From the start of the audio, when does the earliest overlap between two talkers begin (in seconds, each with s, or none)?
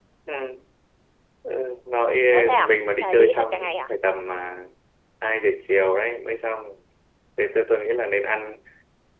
2.5 s